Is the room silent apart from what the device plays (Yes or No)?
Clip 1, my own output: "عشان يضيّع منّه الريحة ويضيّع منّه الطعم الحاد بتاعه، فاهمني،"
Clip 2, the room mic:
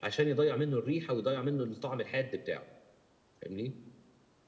Yes